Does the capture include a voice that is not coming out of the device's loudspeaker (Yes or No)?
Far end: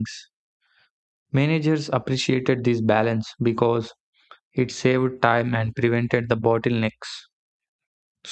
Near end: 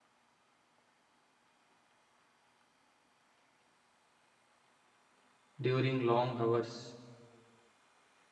Yes